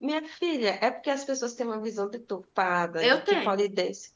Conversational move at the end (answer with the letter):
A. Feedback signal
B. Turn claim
A